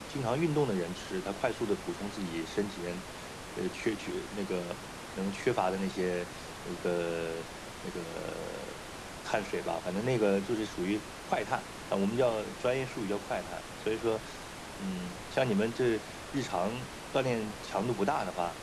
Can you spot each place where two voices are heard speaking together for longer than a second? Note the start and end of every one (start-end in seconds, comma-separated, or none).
none